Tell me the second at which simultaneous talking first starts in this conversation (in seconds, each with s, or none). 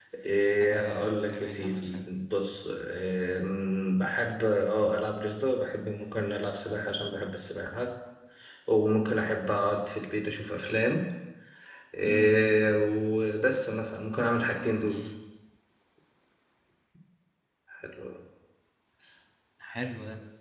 0.5 s